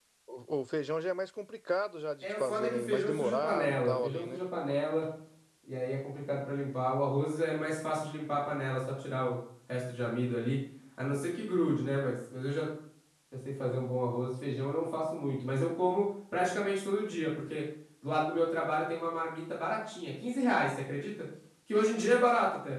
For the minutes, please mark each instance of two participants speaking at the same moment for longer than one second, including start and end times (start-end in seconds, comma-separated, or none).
2.2-4.4